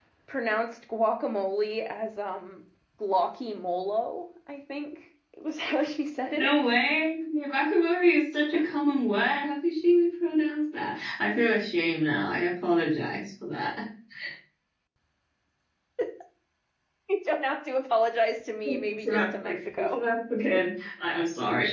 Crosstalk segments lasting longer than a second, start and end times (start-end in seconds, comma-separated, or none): 18.6-20.0